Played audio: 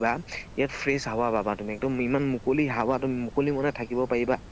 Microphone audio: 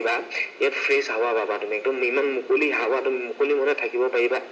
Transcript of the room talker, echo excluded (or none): none